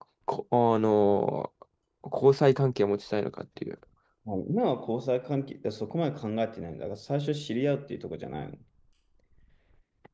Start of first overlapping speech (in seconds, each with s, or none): none